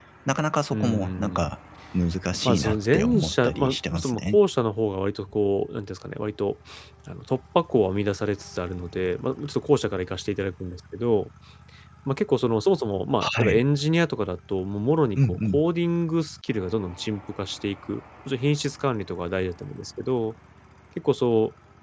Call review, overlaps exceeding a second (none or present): present